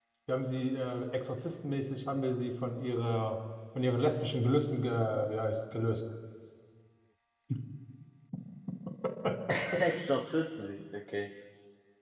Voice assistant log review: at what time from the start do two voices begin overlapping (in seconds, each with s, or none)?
none